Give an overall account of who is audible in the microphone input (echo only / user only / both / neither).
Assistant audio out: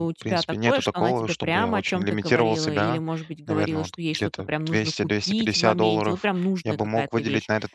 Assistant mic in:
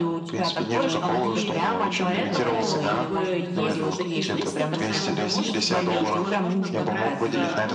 both